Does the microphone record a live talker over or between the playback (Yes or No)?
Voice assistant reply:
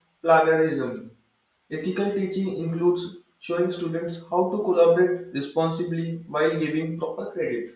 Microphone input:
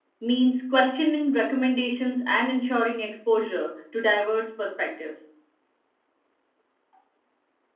Yes